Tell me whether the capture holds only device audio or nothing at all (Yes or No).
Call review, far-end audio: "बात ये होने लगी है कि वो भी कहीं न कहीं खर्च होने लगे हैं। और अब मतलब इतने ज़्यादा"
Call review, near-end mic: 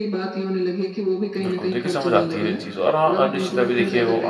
No